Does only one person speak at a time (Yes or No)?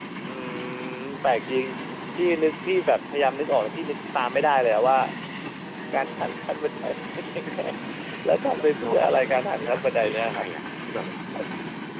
No